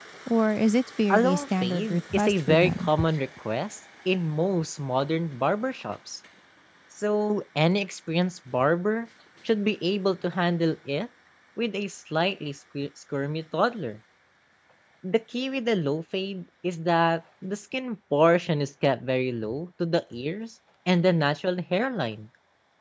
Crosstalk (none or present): present